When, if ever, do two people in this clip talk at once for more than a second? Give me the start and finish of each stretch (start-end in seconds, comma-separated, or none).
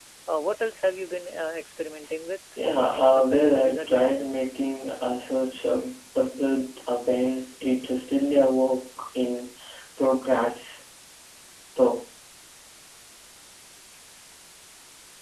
2.8-4.5